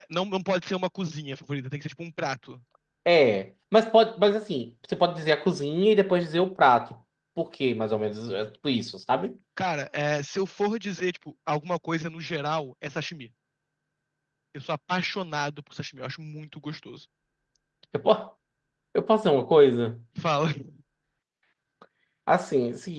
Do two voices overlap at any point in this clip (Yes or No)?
No